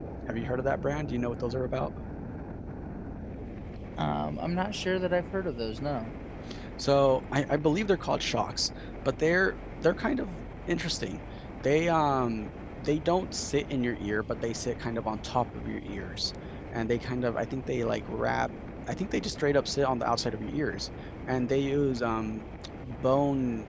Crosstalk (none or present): none